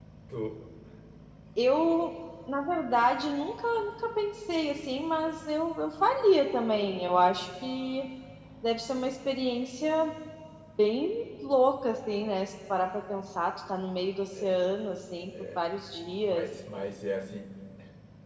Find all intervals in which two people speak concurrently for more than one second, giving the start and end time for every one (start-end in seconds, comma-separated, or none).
none